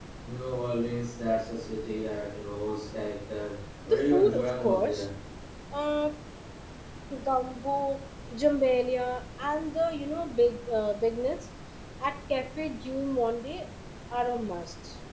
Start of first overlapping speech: 3.9 s

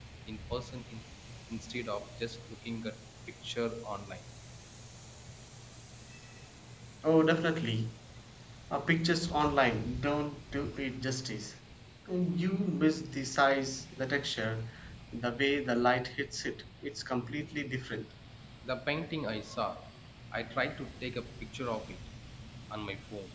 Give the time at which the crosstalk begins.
none

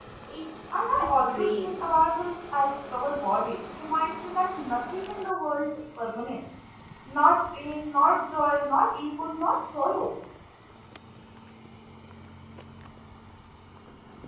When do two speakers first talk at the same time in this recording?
0.9 s

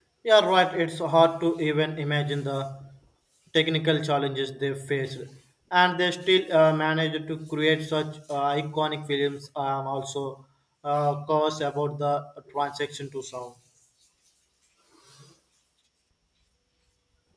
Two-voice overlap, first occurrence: none

